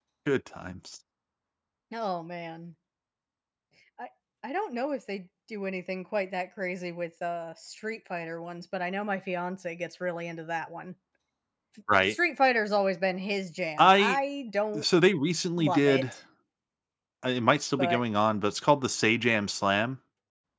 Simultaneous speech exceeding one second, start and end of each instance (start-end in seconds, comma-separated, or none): none